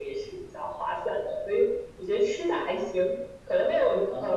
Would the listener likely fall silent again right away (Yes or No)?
Yes